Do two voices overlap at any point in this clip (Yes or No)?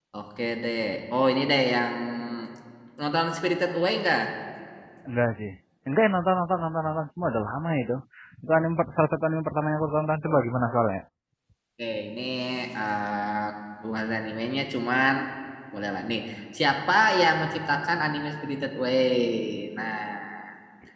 No